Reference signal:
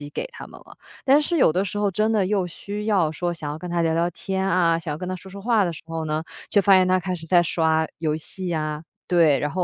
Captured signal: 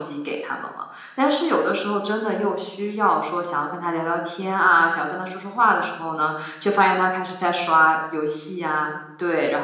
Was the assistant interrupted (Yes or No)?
No